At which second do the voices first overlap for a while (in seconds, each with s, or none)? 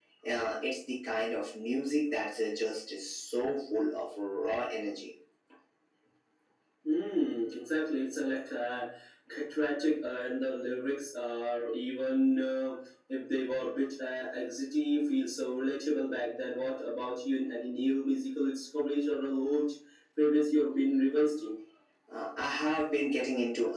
none